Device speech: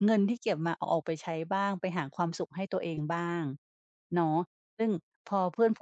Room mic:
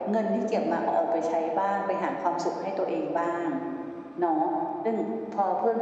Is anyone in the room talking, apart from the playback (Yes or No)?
No